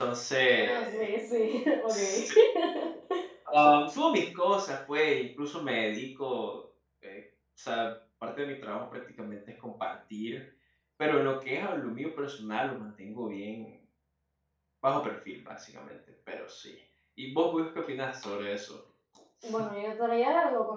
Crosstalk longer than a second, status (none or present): none